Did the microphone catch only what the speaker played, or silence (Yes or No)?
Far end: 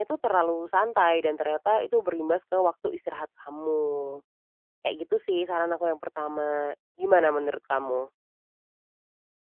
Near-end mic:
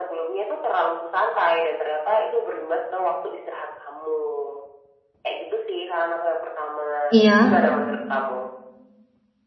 No